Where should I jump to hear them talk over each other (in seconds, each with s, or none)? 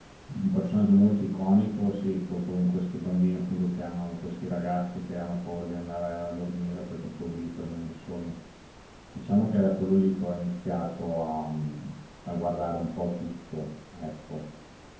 none